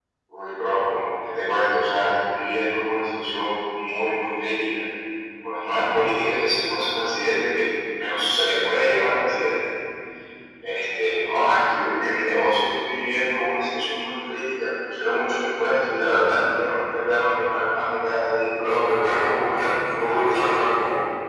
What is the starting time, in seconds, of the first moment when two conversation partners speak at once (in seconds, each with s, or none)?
19.2 s